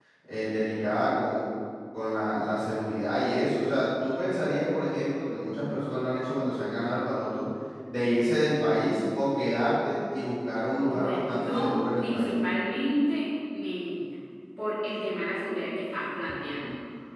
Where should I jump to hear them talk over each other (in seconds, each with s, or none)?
10.8 s